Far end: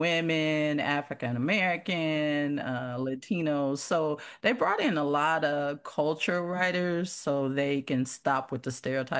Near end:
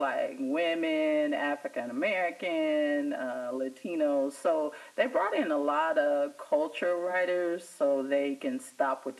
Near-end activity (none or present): none